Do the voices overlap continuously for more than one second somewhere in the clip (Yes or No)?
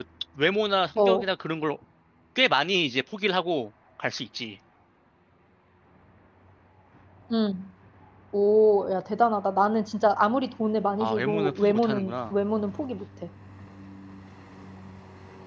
Yes